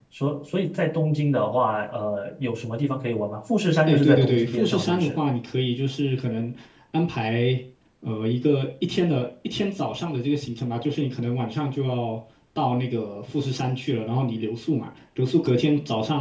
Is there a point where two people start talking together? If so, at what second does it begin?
4 s

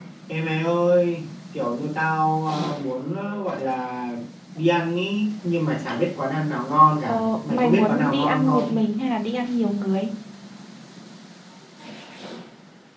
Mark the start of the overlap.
7 s

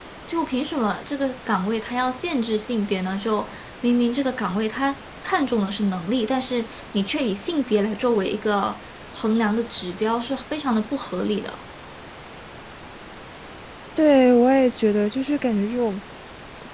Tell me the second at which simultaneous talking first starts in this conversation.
none

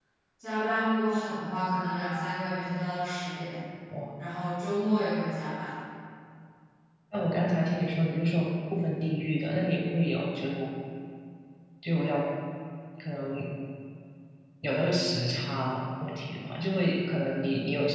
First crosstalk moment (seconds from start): none

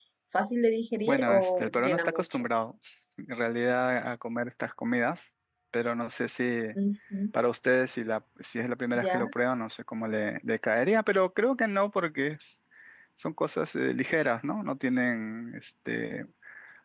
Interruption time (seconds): 1 s

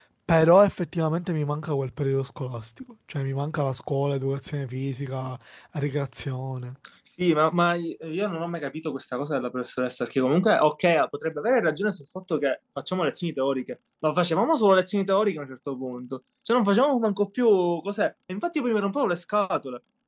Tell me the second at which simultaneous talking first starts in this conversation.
none

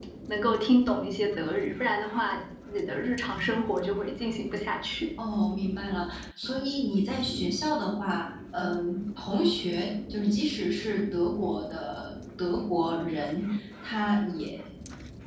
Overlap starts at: none

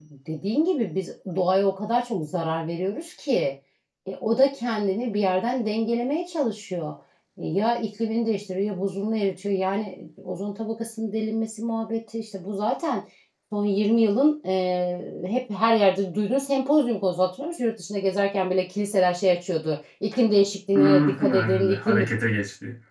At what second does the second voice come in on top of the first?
21 s

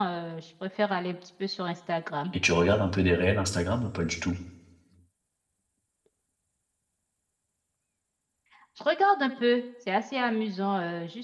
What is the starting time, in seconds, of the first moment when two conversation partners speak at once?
none

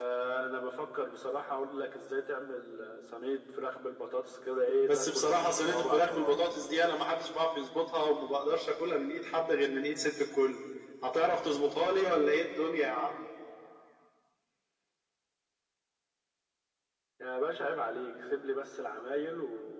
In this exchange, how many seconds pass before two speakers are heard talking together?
5 s

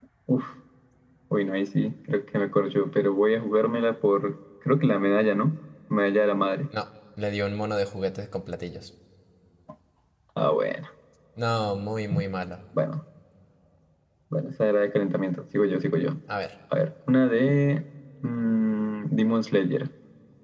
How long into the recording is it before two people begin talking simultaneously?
none

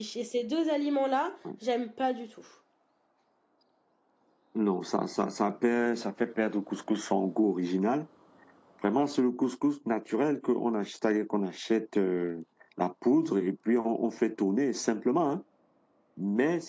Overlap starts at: none

